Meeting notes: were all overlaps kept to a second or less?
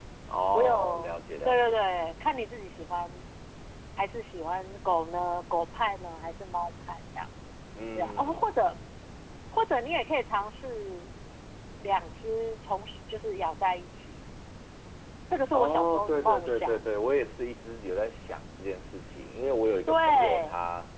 No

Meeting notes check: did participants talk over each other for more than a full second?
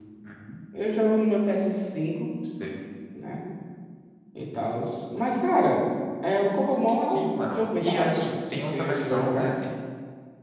Yes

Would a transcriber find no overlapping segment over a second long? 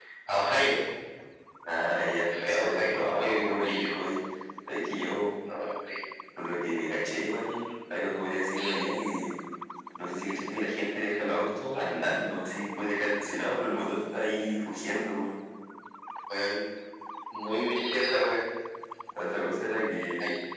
No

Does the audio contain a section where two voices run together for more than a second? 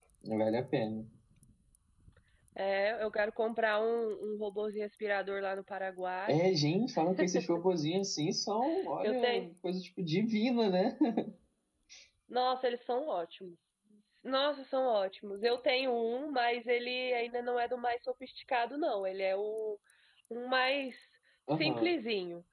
No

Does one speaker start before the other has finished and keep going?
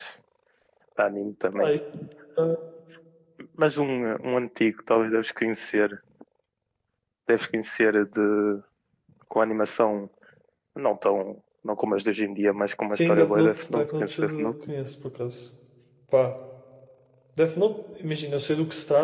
Yes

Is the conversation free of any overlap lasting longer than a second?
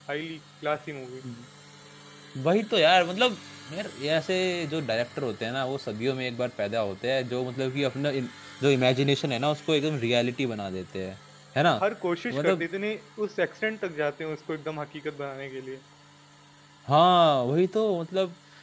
Yes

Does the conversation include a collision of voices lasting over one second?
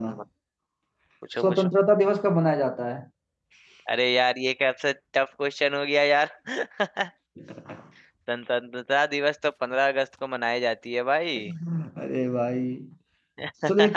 No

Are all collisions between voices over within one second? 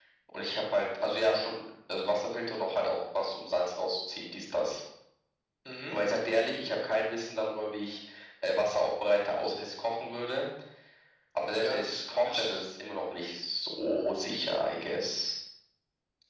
No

